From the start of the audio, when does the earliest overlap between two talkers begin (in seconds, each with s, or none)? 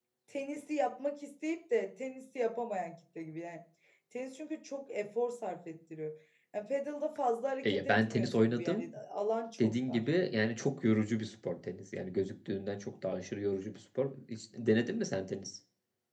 7.6 s